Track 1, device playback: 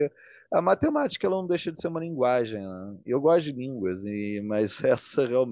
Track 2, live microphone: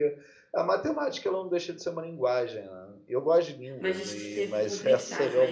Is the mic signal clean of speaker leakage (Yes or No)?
No